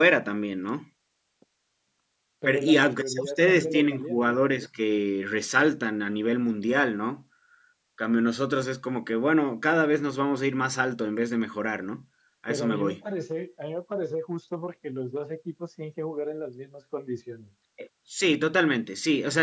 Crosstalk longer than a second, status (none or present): present